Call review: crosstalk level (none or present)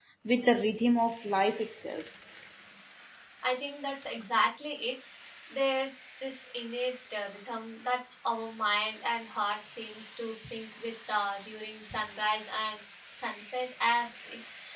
none